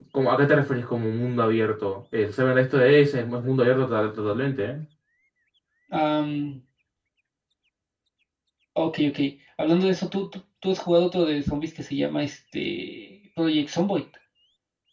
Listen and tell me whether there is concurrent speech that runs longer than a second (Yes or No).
No